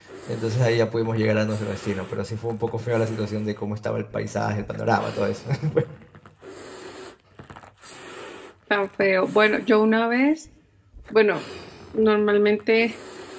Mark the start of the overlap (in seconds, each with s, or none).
none